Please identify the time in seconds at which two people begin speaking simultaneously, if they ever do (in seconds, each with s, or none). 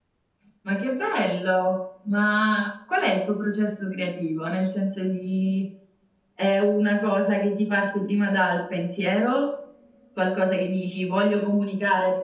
none